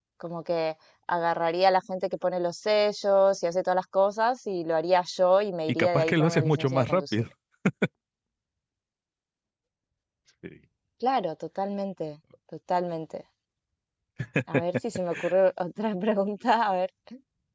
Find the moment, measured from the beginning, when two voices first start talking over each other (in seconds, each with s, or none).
5.7 s